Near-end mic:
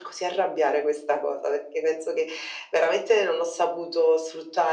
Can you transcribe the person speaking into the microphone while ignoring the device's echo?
none

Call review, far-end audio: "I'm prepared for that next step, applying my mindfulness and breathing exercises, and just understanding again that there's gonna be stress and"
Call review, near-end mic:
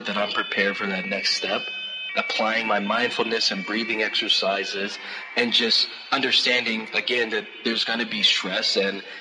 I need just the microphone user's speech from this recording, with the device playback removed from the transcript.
none

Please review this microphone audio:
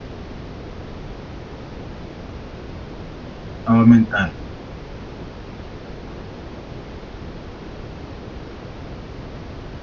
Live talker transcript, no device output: Todo mental.

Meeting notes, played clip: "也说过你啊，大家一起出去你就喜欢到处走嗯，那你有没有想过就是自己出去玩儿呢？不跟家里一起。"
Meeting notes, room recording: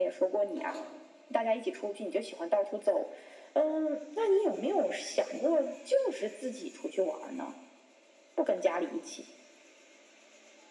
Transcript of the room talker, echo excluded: none

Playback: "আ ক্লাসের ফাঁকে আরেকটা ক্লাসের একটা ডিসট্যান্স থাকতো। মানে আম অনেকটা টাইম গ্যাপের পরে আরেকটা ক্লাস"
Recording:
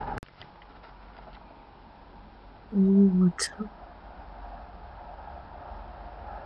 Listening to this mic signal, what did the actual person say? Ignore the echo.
ও আচ্ছা।

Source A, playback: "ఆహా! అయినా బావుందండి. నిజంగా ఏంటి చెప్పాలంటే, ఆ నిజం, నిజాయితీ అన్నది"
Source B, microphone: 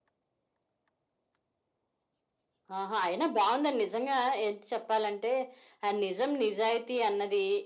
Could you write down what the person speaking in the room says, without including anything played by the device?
none

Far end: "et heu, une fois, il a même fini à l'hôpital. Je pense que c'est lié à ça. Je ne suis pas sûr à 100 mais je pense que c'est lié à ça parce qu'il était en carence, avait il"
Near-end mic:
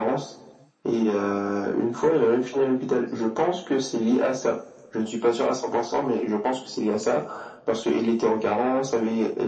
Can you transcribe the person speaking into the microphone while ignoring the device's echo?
none

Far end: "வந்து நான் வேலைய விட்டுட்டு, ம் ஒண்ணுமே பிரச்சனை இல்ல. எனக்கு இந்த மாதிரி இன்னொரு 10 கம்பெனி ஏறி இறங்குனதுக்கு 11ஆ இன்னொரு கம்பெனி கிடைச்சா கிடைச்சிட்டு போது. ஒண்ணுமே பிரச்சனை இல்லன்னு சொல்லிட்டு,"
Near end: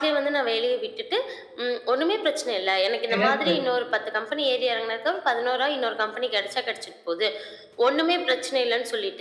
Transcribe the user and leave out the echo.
சிறப்பு.

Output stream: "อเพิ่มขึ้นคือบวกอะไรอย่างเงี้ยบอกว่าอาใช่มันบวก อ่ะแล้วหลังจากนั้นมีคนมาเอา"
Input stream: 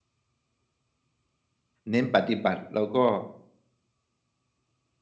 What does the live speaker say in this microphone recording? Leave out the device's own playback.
เน้นปฏิบัติเราก็

